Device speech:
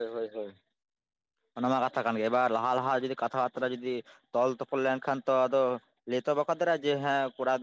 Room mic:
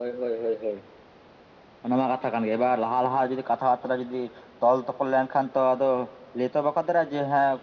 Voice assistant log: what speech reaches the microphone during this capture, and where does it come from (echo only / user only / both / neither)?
echo only